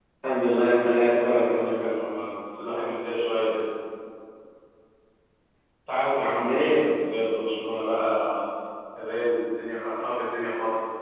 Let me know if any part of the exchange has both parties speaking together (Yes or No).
Yes